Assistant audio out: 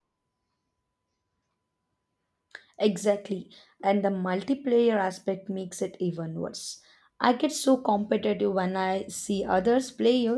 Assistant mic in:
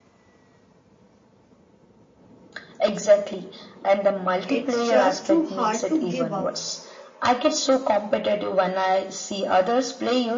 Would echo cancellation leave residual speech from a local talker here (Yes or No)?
Yes